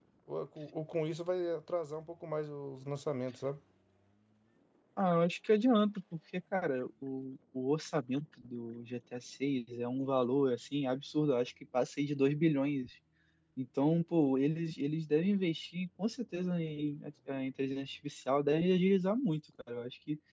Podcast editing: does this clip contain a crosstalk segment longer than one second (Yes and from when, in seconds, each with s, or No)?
No